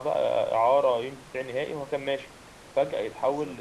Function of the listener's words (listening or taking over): listening